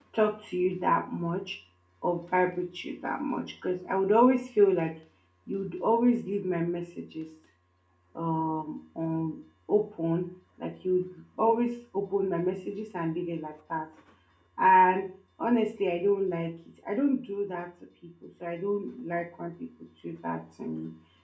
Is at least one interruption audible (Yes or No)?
No